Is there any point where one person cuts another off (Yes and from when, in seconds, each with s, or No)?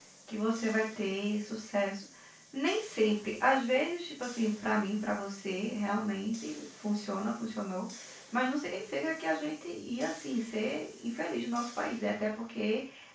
No